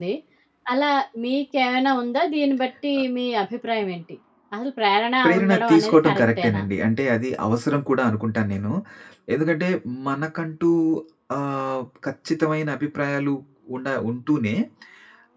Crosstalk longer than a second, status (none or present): present